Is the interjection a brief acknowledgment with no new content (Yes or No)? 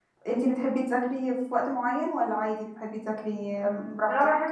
No